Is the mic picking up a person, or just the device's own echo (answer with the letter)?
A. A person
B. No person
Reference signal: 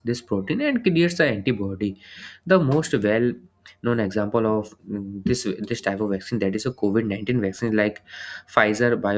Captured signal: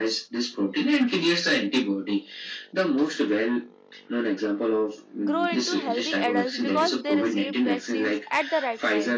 A